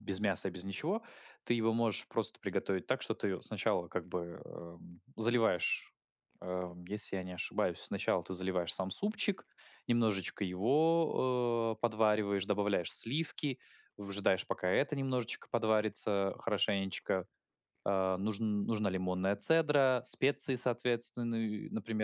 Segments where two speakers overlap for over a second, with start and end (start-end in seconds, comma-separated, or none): none